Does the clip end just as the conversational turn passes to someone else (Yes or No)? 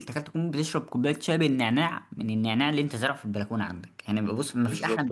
Yes